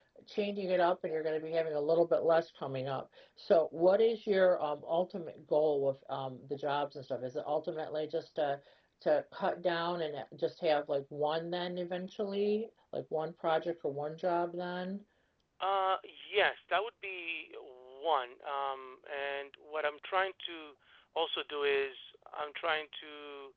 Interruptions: none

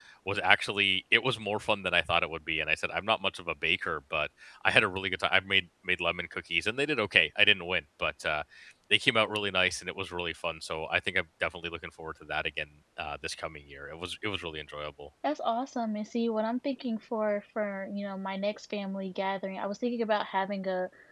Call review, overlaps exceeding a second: none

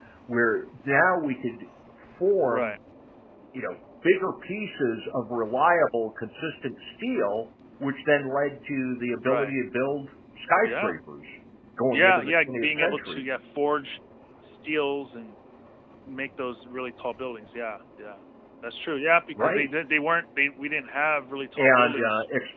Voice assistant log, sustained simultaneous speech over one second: present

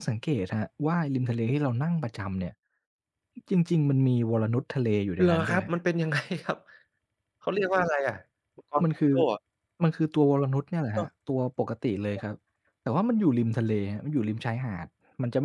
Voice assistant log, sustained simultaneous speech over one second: none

